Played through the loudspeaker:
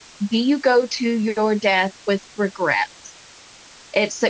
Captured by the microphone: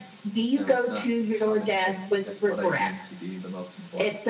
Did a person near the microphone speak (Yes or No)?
Yes